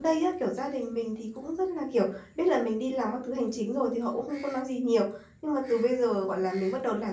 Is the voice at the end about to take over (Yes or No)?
No